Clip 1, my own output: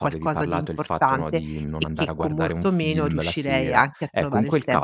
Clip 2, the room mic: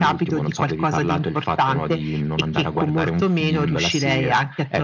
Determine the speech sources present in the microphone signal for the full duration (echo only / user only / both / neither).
echo only